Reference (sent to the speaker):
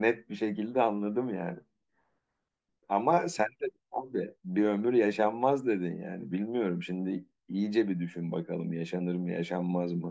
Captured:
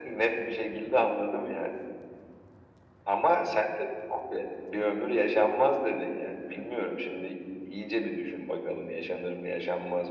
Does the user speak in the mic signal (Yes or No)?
No